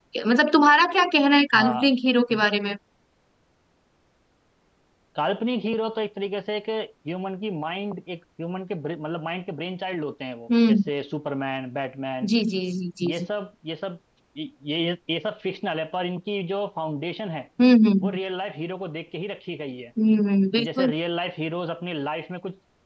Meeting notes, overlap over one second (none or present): none